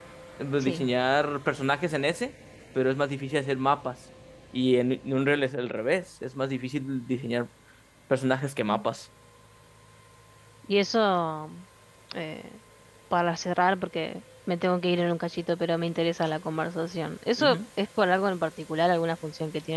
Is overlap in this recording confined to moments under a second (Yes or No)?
Yes